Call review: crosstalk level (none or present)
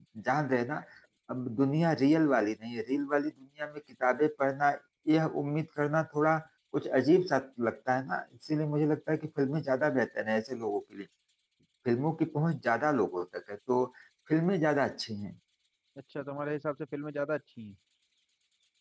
none